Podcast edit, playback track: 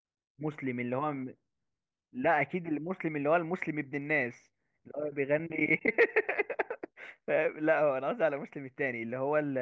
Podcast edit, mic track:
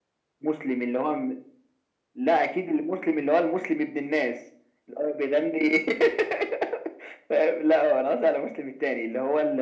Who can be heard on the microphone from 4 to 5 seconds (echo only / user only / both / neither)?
echo only